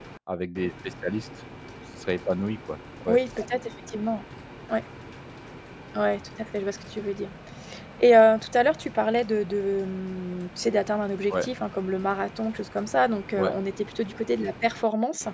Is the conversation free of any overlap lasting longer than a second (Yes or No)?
Yes